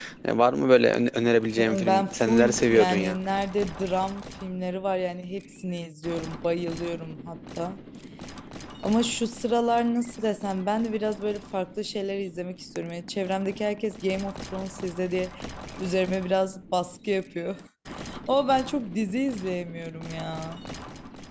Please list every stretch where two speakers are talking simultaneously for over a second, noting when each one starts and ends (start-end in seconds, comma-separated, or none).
1.6-3.2